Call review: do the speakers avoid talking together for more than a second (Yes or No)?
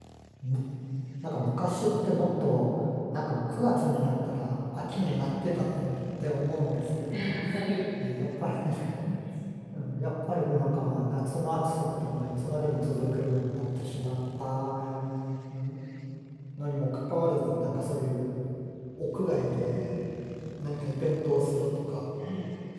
Yes